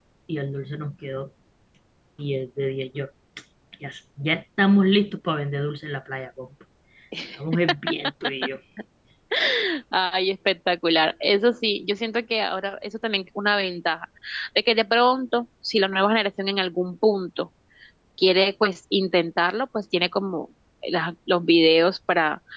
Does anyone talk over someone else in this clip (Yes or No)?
No